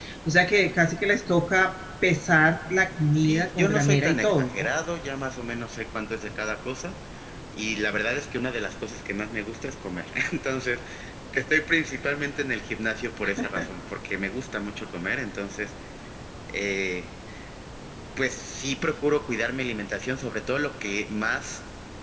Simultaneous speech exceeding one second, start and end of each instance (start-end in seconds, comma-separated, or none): 3.1-4.7